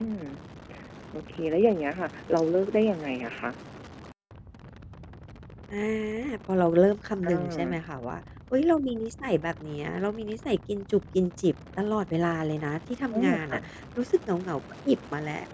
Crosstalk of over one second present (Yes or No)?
No